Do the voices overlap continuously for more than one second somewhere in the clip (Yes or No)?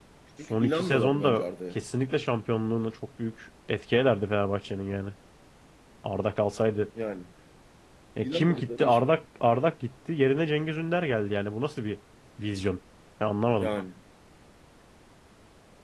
Yes